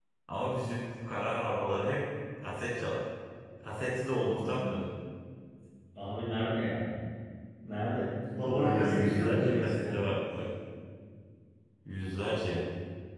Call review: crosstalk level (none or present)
present